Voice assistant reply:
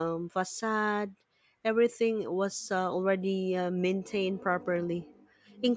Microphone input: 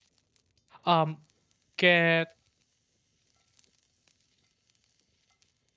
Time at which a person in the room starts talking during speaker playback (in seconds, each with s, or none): 0.8 s